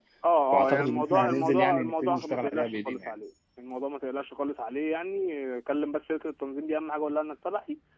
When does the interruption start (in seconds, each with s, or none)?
0.5 s